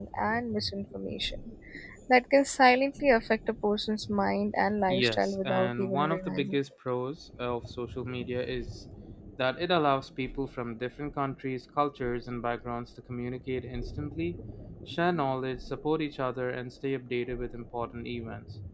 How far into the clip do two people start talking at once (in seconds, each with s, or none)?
4.9 s